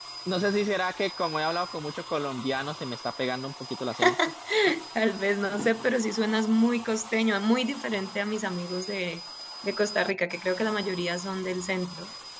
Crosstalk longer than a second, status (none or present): none